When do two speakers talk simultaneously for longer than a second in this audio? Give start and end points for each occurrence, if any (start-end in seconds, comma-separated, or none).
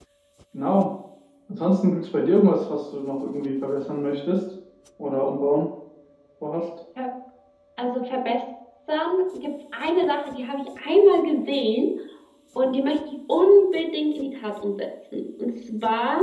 none